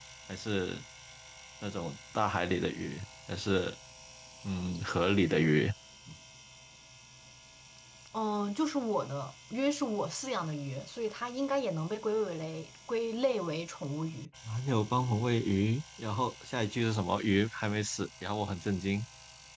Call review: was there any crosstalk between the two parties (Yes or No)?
No